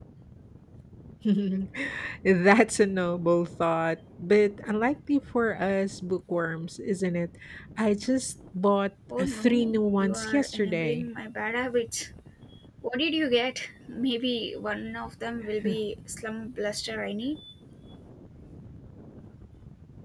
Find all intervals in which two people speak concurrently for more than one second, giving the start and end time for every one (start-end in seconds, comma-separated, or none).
9.2-11.1